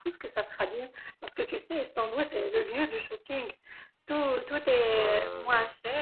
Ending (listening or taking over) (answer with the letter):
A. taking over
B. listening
B